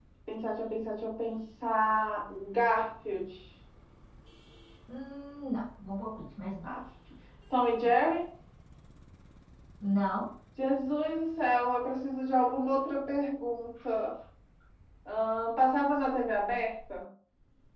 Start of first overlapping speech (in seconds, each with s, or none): none